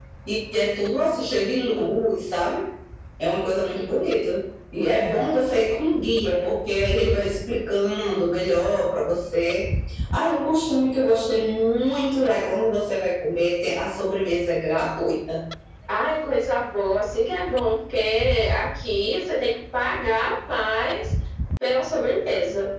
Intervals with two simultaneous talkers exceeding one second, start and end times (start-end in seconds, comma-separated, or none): none